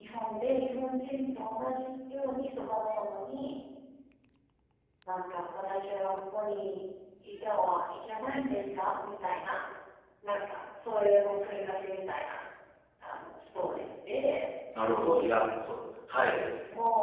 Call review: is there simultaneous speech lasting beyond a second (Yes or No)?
No